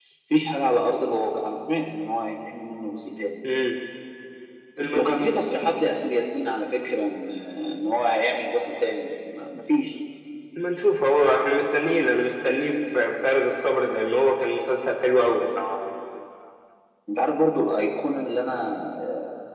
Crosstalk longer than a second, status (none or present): none